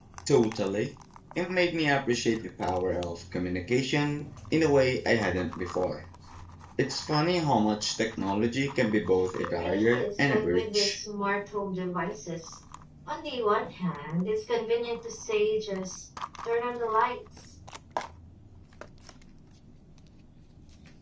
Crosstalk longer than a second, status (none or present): present